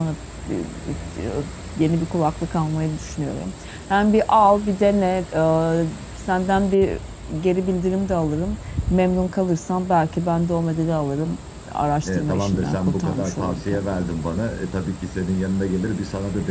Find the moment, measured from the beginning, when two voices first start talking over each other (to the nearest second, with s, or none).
12 s